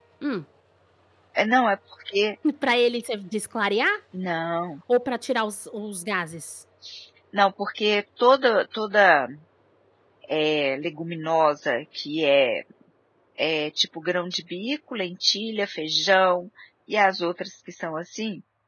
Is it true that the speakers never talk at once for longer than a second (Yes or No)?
Yes